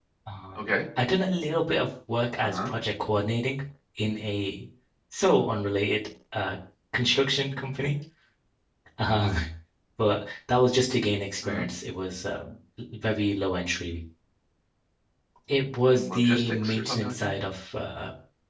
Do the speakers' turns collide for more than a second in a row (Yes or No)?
Yes